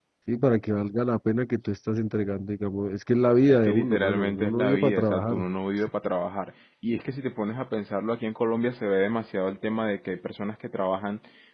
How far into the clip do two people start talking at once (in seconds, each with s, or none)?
3.5 s